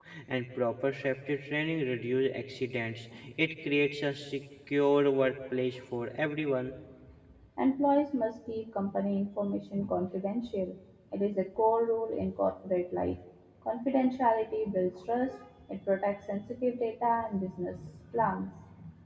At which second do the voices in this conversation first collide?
none

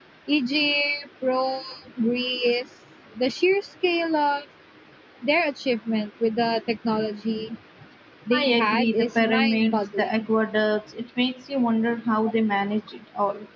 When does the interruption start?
8.3 s

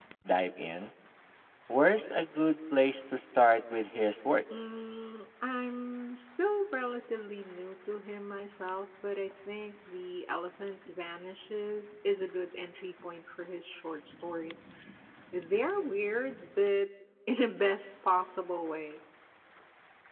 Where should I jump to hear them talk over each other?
none

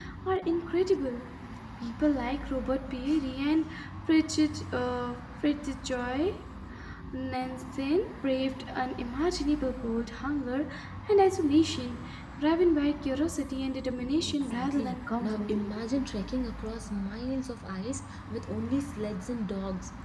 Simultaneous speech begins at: 14.2 s

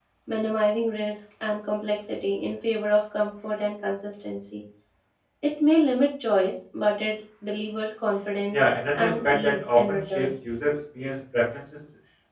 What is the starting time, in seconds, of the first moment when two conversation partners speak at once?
8.5 s

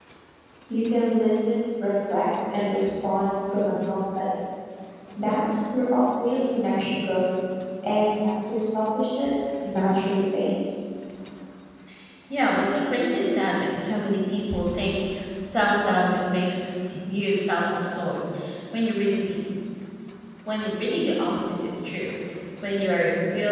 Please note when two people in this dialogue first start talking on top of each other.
none

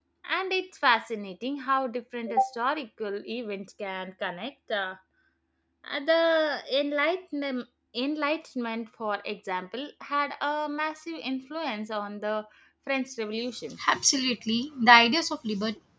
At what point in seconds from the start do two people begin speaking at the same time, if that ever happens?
none

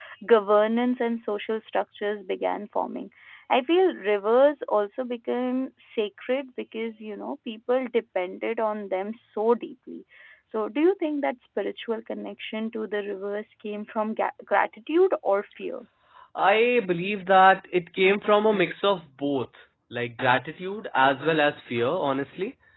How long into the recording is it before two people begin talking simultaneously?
none

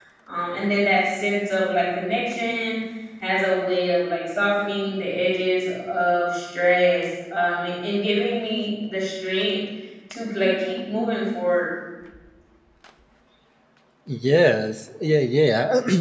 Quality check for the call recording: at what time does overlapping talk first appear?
none

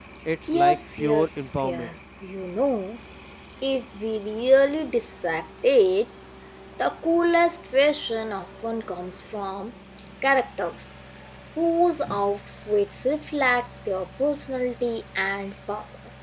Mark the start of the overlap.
0.5 s

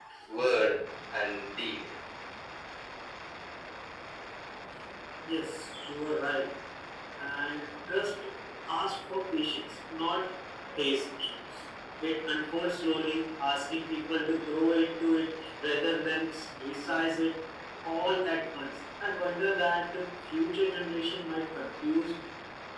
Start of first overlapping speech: none

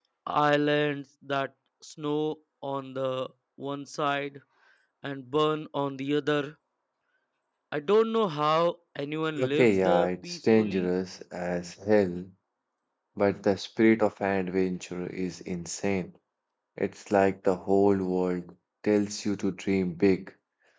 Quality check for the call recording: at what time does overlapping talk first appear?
9.3 s

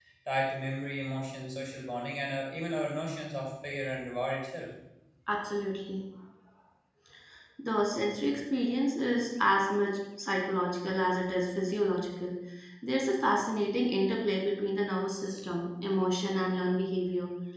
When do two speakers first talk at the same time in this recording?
none

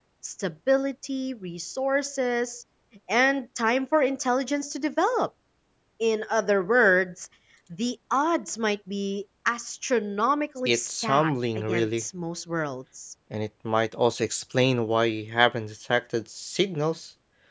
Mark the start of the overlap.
10.7 s

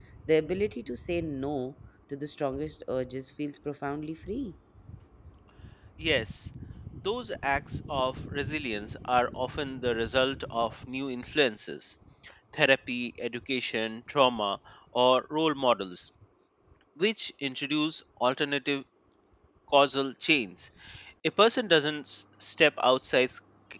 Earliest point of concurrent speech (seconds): none

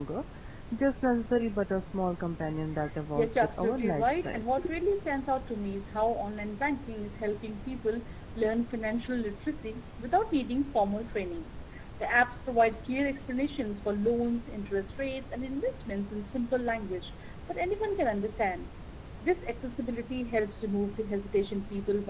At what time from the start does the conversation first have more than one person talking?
3.2 s

